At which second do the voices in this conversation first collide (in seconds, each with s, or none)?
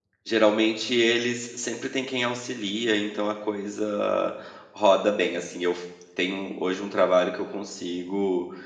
none